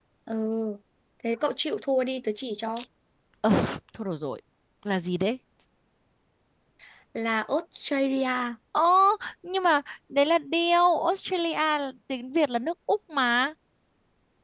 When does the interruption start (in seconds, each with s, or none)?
none